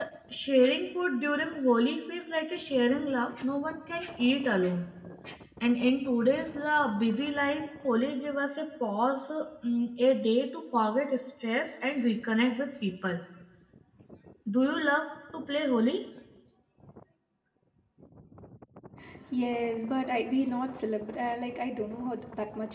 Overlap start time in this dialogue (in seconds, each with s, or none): none